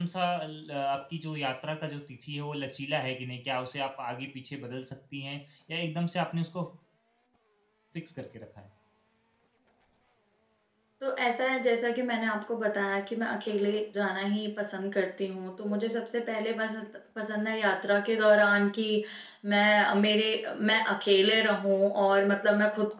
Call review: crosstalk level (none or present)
none